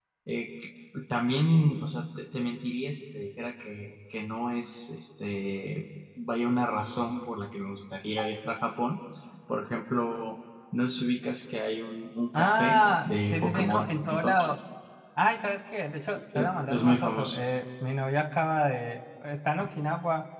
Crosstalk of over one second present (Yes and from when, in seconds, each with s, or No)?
Yes, from 12.3 s